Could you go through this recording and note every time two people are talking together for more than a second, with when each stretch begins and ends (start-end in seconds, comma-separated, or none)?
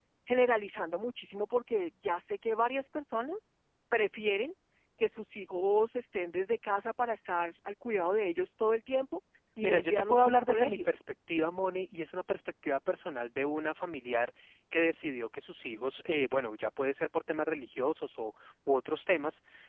9.6-10.9